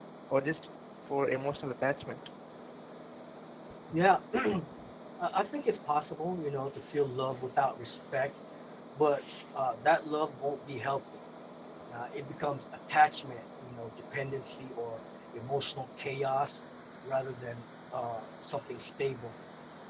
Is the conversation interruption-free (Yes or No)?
Yes